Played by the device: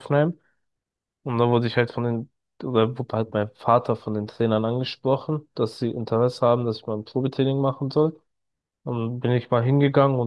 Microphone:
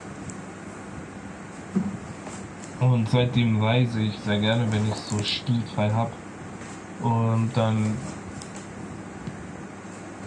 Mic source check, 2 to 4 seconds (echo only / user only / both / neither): user only